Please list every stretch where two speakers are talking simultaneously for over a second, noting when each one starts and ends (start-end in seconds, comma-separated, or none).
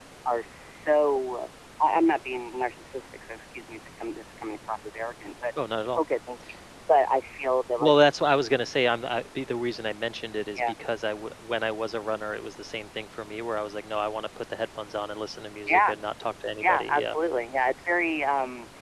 none